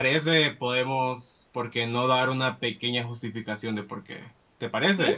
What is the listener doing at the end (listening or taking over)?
taking over